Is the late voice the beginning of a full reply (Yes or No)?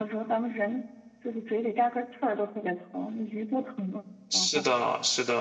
Yes